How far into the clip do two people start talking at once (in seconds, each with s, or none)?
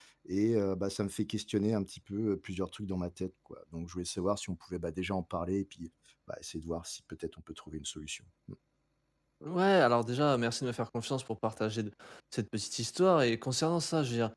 none